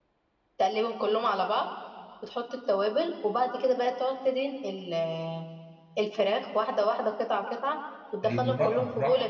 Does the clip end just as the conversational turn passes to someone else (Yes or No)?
Yes